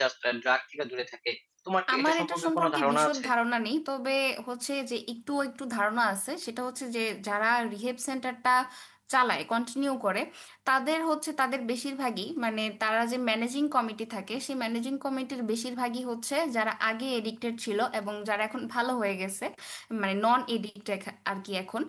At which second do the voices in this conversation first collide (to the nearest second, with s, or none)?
2 s